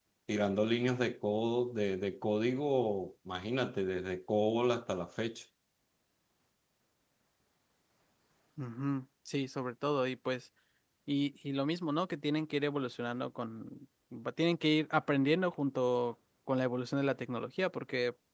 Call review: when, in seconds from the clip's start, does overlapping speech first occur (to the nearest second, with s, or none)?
none